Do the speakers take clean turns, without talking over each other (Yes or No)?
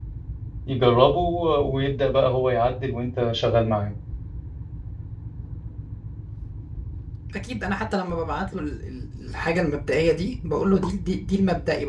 Yes